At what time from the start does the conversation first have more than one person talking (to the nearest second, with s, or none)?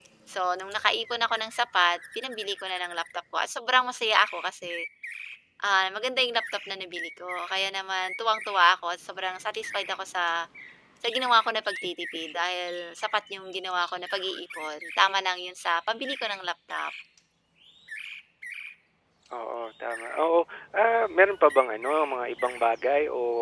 none